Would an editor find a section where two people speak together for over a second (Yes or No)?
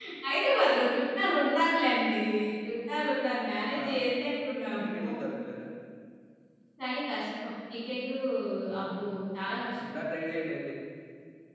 No